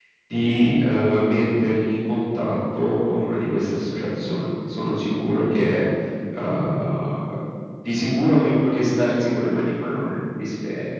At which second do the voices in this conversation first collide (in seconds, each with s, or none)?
none